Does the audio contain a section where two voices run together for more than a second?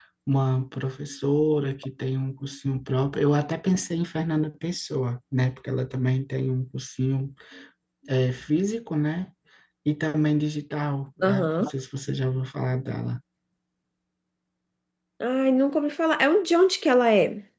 No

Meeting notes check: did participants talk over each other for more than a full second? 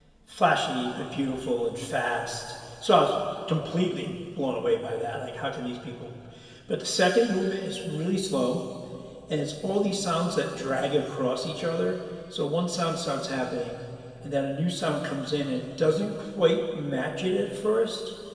No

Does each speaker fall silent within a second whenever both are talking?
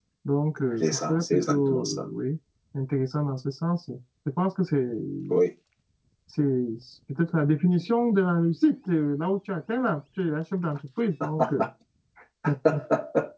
No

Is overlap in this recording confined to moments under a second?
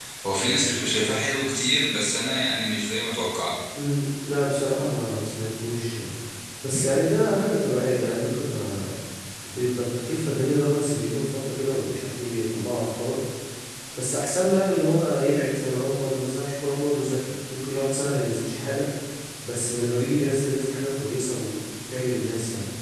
Yes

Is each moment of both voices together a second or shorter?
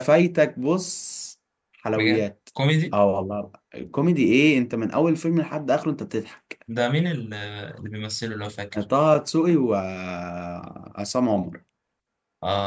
Yes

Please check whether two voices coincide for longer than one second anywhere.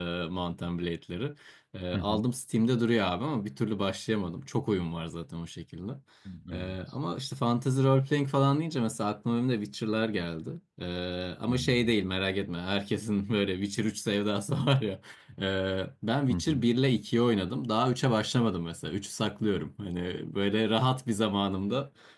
No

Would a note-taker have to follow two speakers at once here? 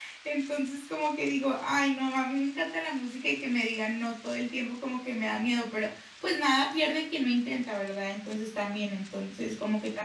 No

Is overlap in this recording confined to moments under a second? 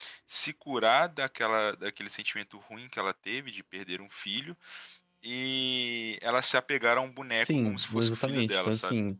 No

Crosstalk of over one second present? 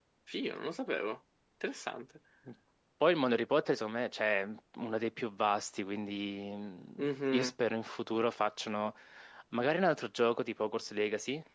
No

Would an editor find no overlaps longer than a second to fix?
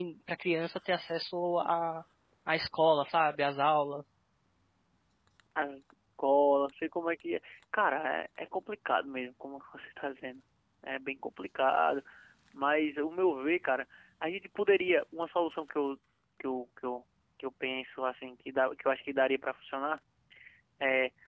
Yes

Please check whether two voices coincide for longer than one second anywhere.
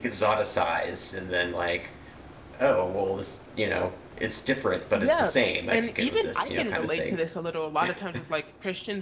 Yes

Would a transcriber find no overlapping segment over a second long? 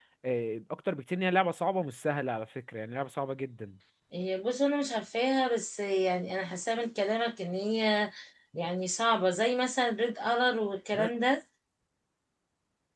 Yes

